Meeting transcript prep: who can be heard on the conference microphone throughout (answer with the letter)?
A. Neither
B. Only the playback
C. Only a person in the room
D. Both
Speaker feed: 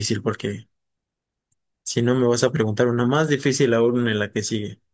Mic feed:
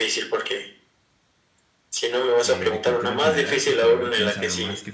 D